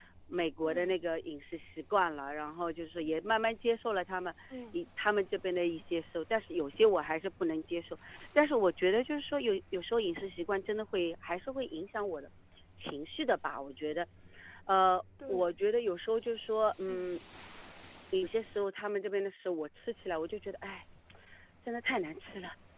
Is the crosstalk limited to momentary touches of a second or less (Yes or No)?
Yes